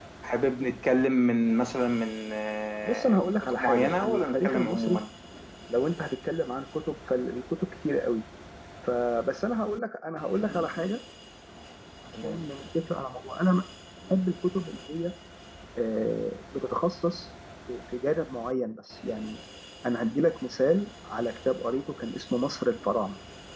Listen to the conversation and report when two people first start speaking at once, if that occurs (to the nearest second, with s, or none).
3 s